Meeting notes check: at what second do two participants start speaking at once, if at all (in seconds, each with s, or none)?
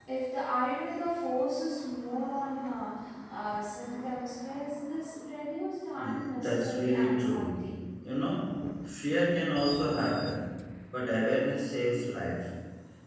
6.0 s